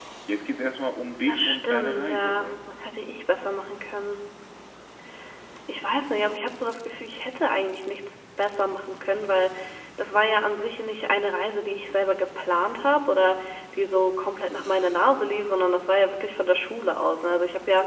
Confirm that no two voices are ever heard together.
No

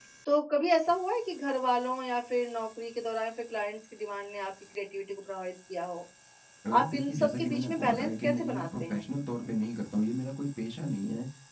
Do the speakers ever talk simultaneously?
Yes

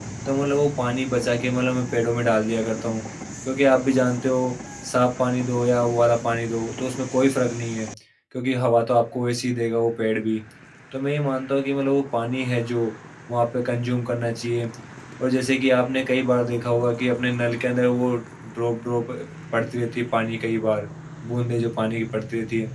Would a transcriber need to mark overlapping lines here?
No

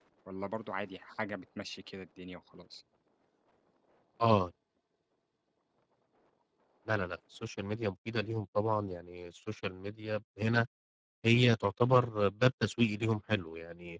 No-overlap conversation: Yes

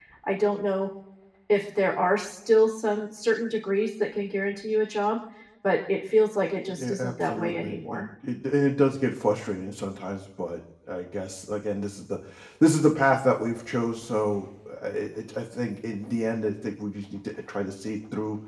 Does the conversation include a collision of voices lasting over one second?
Yes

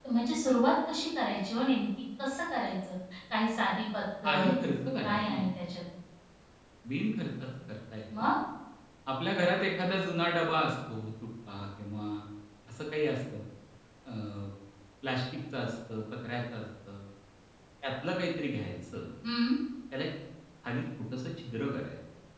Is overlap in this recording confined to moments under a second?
Yes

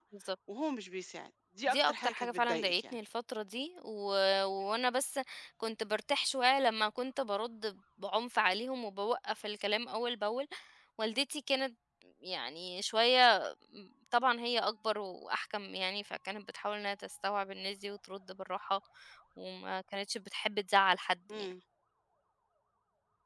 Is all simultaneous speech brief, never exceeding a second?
No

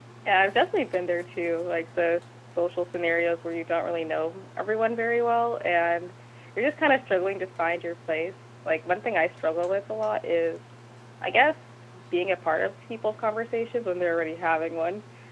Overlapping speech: No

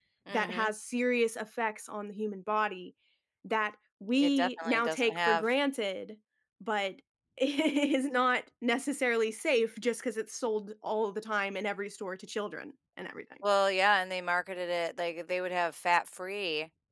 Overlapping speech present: Yes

